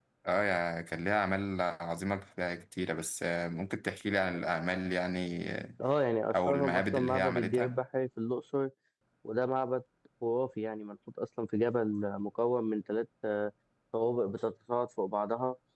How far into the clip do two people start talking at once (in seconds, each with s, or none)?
6.4 s